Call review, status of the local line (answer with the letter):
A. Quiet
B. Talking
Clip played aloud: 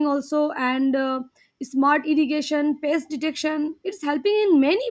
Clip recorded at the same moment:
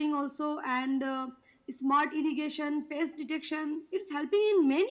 A